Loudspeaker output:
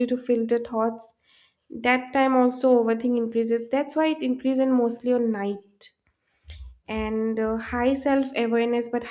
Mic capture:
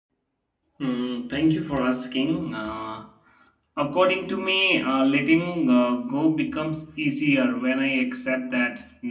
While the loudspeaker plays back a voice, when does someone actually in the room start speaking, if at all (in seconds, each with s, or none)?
0.8 s